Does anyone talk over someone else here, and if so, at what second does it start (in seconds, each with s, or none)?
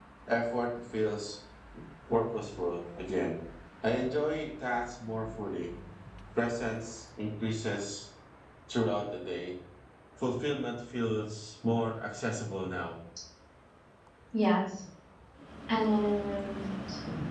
none